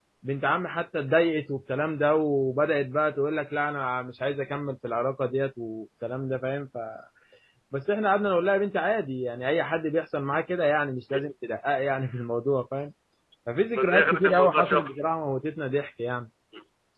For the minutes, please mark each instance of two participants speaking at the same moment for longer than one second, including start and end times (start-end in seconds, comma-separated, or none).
13.8-15.0